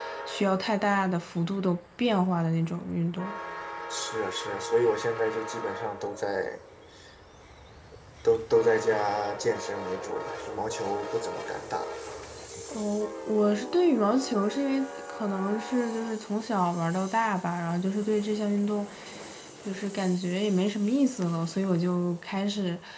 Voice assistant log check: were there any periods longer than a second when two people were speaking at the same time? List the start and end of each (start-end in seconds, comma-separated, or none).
none